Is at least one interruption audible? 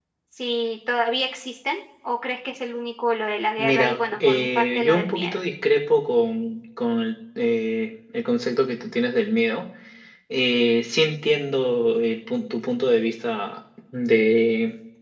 Yes, from 3.6 s

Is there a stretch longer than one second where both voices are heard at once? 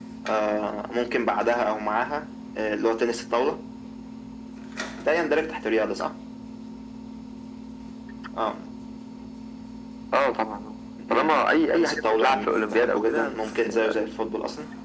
Yes, from 11.0 s

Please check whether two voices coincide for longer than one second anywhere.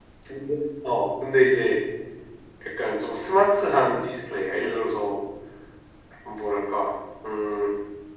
No

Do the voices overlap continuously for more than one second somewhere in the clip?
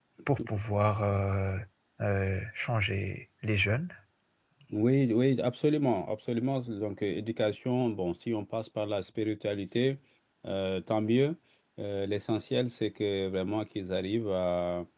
No

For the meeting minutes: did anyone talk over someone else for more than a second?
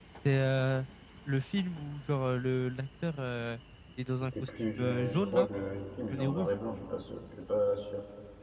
Yes, from 4.2 s

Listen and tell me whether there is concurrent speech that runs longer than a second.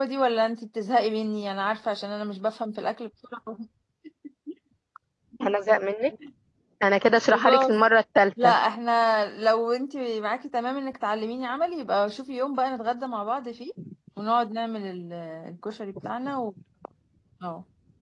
No

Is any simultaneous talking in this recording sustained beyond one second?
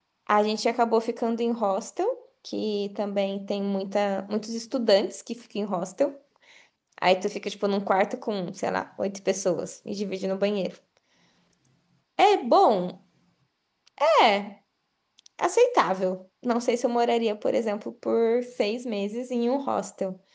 No

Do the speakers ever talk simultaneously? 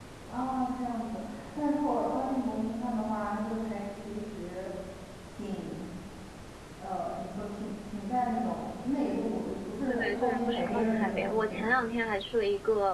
Yes, from 9.9 s

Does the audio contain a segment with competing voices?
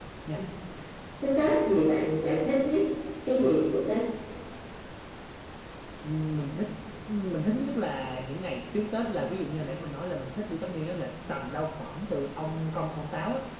No

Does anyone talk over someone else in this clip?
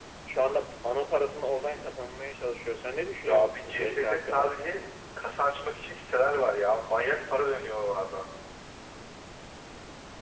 Yes, from 3.2 s

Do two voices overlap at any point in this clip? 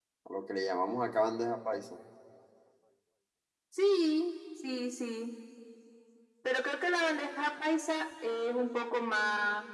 No

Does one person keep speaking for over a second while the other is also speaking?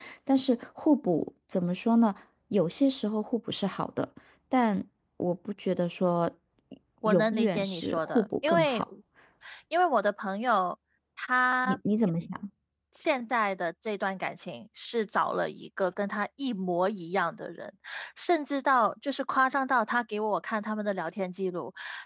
Yes, from 7.1 s

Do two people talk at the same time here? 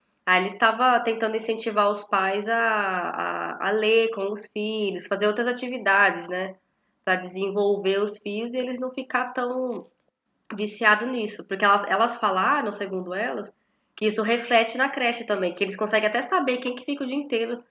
No

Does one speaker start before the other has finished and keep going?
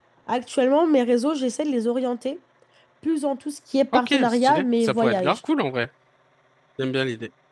Yes, from 3.9 s

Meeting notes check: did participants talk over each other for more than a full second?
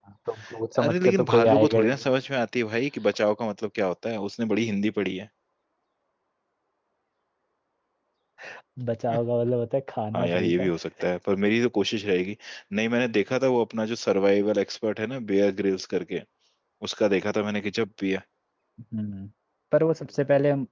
Yes, from 0.8 s

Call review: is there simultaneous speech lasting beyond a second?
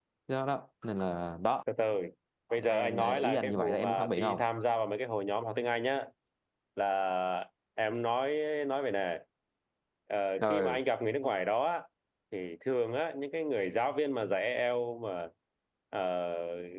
Yes, from 2.7 s

